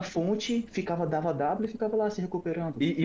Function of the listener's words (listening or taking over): taking over